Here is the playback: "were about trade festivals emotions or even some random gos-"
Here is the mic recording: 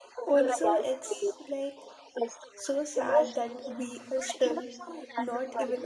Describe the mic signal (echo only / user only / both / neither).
both